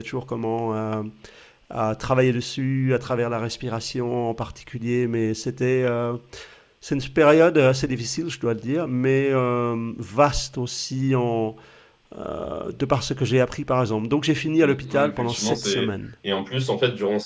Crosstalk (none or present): present